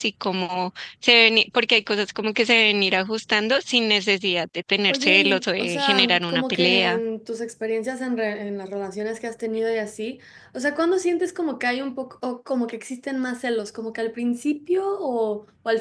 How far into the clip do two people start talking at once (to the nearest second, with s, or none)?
5 s